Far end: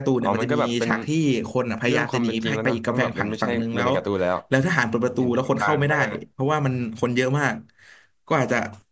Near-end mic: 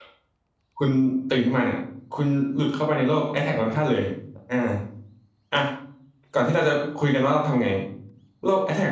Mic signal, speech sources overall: user only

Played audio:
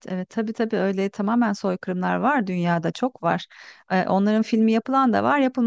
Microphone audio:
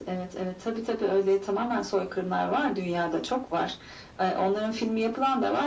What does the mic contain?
echo only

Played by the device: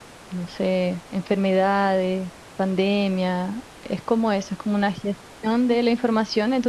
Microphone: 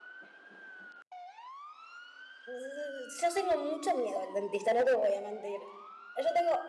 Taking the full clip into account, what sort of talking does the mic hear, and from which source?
user only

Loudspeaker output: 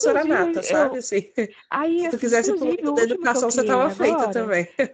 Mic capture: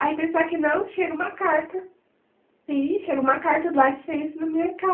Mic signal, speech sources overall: user only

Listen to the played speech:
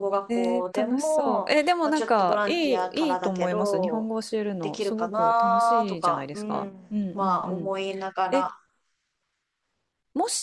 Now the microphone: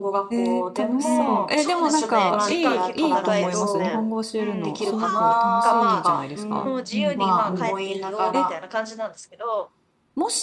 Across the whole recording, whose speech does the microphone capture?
both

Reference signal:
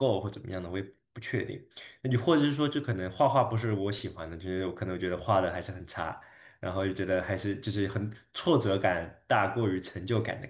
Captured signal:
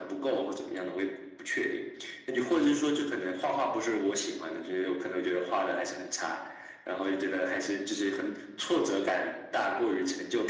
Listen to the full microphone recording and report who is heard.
echo only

